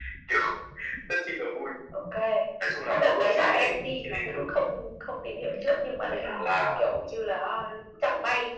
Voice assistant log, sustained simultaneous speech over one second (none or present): present